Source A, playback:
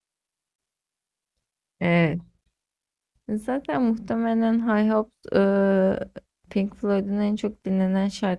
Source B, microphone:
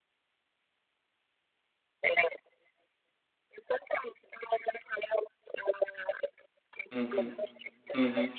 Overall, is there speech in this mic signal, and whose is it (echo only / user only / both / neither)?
both